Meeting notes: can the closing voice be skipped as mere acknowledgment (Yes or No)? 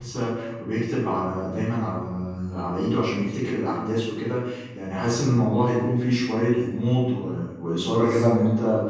Yes